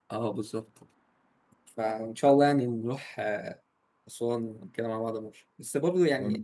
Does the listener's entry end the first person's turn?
No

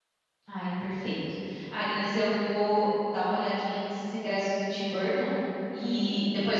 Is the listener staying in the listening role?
Yes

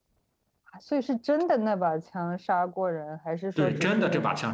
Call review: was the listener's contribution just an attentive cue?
No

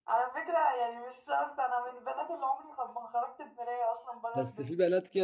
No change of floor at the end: No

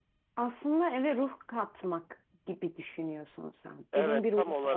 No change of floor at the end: No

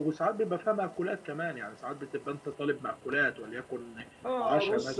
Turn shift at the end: Yes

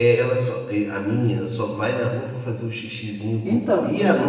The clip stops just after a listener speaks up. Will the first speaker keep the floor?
Yes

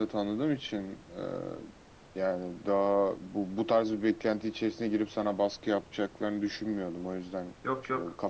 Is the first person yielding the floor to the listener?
Yes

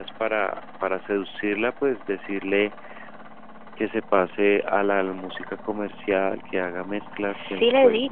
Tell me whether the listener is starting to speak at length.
Yes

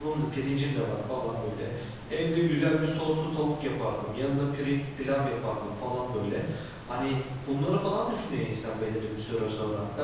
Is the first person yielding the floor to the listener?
No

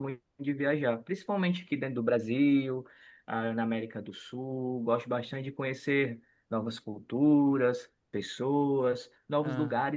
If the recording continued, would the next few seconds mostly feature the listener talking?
No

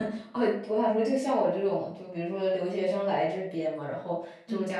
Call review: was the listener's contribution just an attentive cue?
Yes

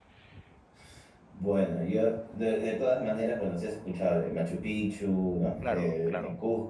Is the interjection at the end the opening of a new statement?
No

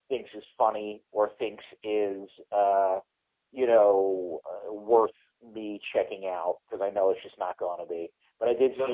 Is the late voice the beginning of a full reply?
No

